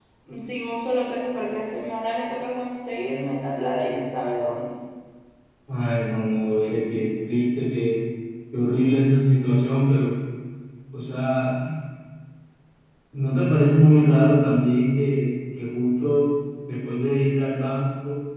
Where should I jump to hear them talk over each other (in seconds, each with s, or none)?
none